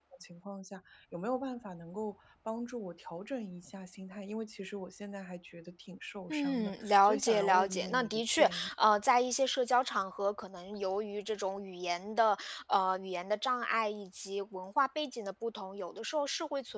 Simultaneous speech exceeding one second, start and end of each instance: 6.3-8.7

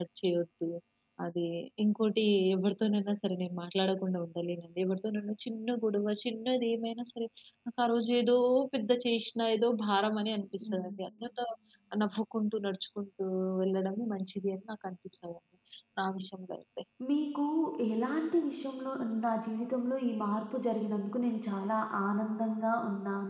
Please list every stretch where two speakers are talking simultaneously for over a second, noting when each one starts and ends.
none

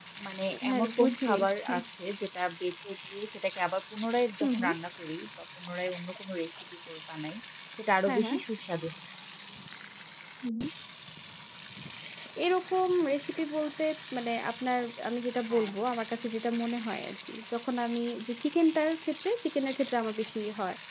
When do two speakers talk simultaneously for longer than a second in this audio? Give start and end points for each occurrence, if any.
0.5-1.8

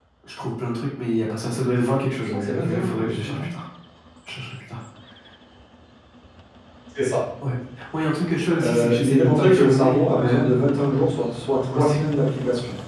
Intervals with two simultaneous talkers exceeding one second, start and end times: 2.2-3.4, 8.6-10.4

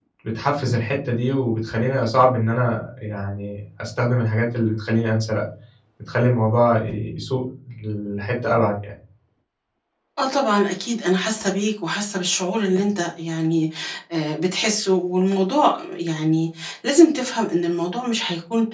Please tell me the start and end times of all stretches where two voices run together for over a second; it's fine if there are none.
none

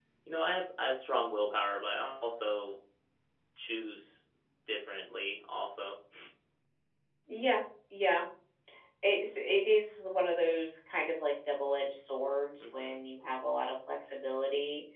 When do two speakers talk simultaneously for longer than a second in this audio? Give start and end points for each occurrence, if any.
none

